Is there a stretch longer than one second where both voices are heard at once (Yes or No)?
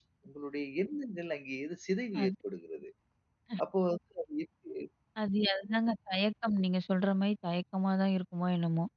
No